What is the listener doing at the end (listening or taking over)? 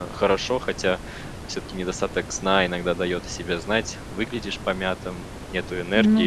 listening